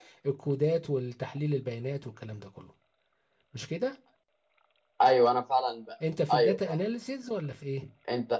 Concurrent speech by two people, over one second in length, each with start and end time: none

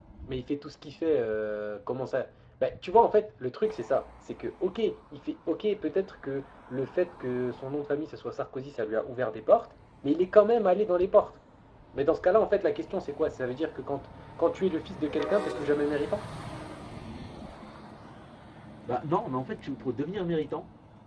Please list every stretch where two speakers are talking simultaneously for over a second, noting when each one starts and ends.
none

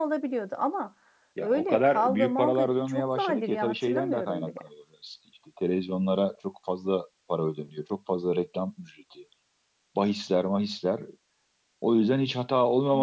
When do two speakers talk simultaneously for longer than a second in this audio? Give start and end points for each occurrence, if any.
1.4-4.5

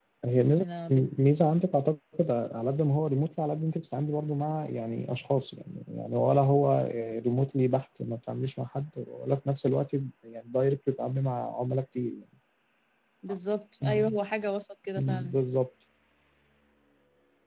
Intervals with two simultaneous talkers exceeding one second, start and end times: none

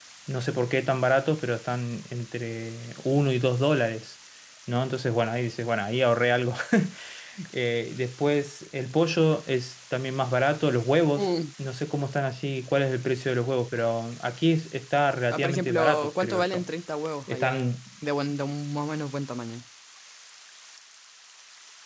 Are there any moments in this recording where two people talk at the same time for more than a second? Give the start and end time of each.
15.3-16.6

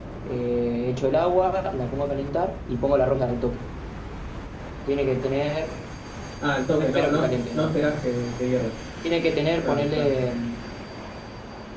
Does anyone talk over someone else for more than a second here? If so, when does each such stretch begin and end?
6.8-8.0

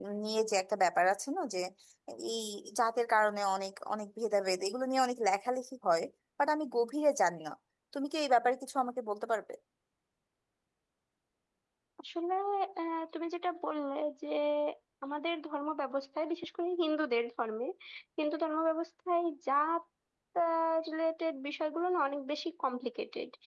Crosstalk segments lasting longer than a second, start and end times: none

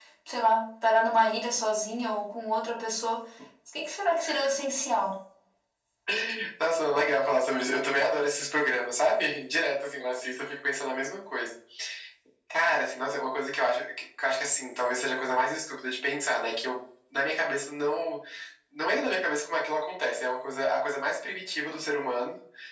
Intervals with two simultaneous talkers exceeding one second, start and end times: none

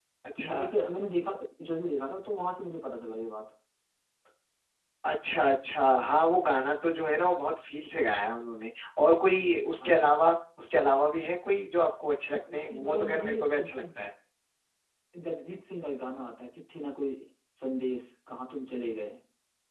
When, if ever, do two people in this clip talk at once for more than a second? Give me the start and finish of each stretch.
12.5-13.8

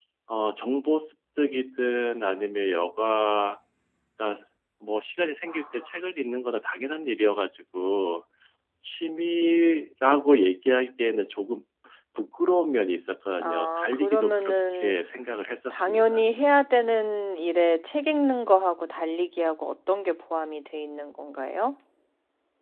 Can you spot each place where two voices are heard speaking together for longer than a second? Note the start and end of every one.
13.4-14.9

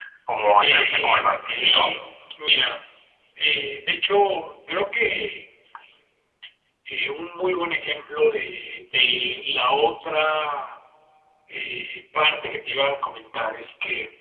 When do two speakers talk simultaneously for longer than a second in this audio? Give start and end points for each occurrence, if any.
0.6-1.9

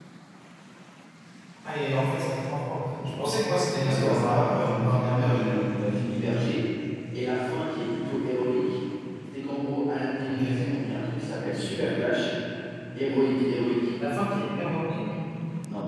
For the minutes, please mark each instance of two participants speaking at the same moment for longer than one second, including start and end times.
3.8-5.6

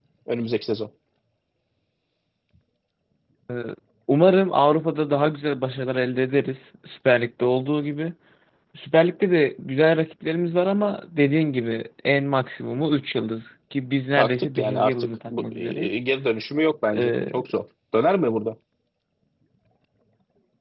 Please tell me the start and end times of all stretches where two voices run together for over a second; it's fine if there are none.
14.2-15.9

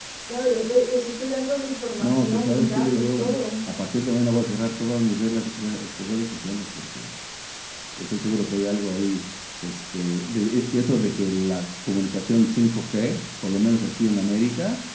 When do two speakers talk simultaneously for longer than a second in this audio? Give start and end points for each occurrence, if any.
2.0-3.2

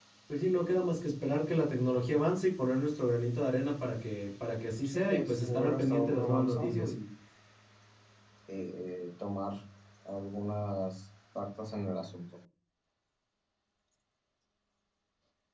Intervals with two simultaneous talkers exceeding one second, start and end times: 4.8-6.9

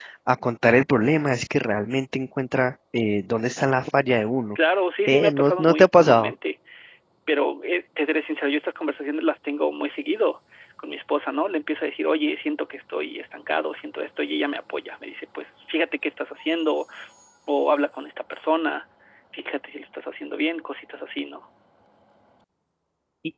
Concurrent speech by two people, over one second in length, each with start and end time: 5.1-6.3

